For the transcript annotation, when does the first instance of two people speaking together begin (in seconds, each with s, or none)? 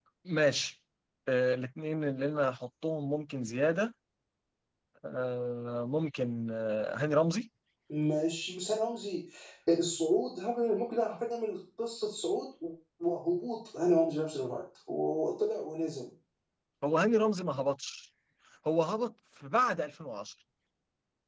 none